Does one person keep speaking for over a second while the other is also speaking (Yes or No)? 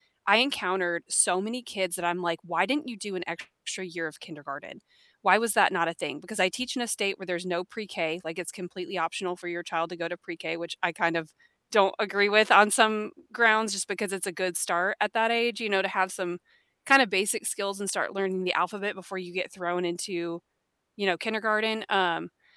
No